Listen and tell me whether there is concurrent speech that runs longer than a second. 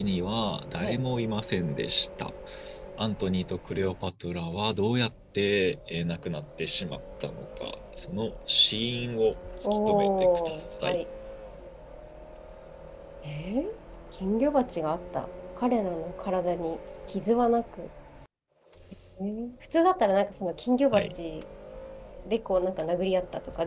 Yes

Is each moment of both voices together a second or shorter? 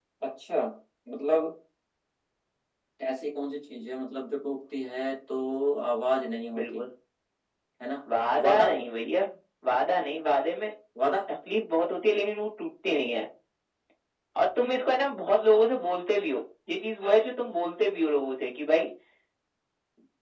Yes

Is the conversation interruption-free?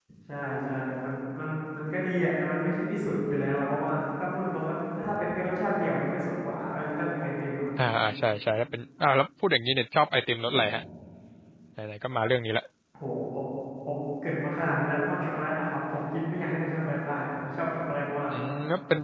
Yes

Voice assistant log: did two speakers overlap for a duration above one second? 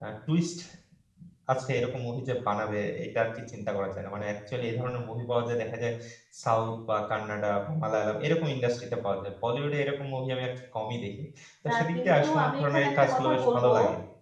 Yes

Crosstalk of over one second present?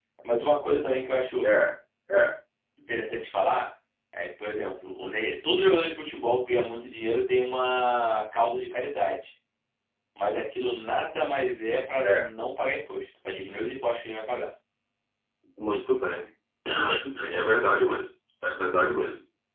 No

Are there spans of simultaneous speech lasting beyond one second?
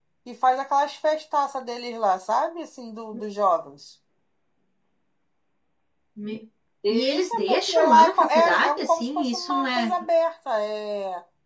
Yes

